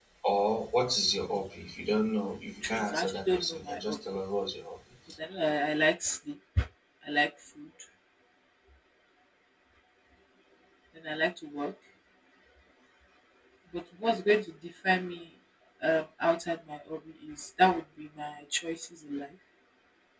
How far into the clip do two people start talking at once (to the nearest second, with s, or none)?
3 s